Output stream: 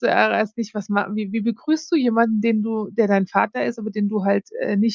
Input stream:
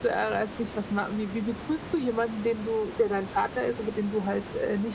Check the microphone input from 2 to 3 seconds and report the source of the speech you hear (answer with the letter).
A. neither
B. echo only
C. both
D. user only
B